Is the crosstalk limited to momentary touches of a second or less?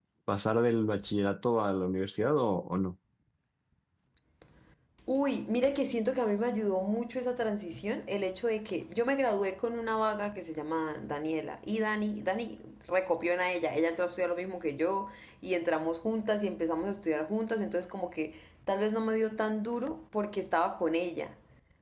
Yes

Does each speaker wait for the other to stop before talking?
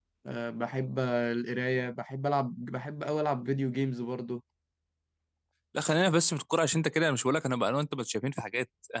Yes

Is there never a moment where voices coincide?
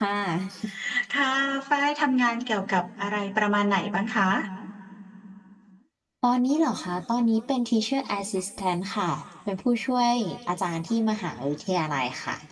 Yes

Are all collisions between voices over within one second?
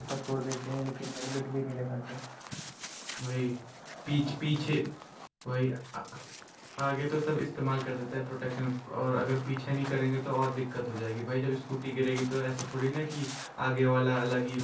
Yes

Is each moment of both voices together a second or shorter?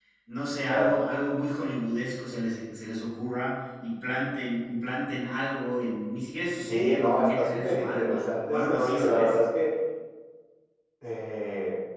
No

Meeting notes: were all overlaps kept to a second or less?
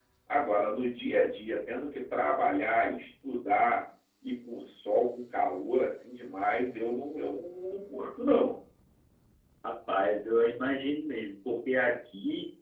Yes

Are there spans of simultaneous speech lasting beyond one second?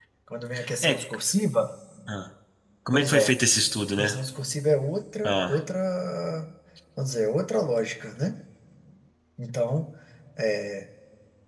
No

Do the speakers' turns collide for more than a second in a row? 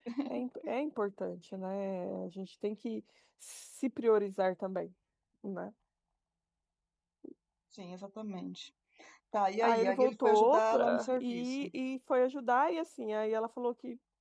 Yes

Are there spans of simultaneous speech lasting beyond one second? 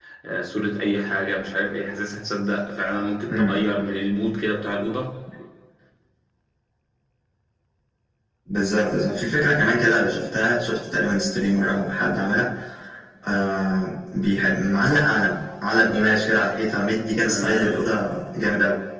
No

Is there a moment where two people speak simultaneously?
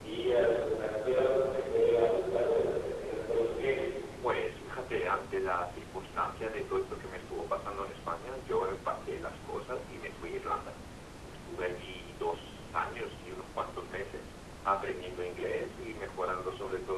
No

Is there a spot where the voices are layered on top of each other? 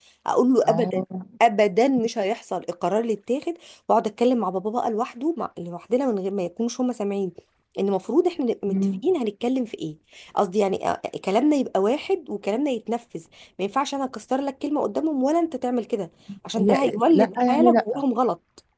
Yes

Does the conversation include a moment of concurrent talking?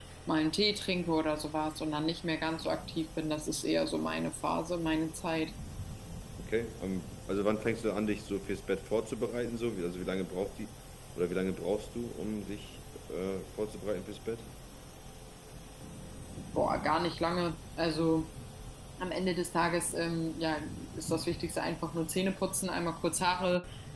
No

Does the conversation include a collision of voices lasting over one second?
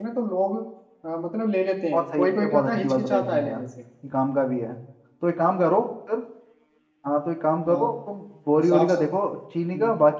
Yes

